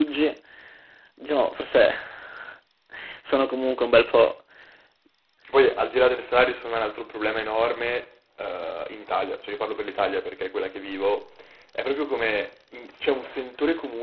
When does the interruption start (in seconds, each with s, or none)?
none